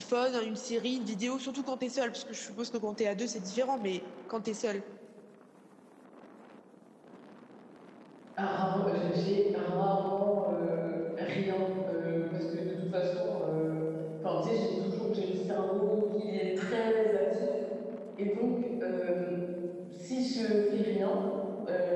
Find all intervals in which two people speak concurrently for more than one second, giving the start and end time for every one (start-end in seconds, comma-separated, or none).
none